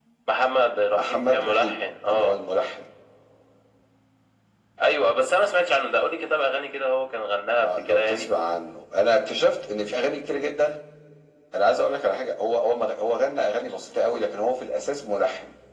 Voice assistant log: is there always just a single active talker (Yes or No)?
No